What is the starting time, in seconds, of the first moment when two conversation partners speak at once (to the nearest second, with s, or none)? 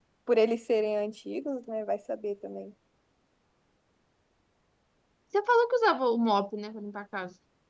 none